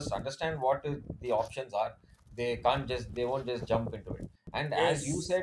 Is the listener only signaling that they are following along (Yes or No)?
Yes